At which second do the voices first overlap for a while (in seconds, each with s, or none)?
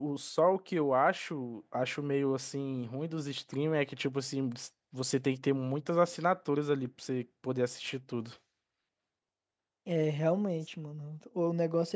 none